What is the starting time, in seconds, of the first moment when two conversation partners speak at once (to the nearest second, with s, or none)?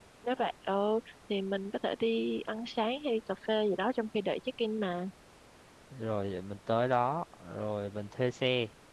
none